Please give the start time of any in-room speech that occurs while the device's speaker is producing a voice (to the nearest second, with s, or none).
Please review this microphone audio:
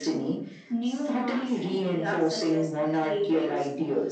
none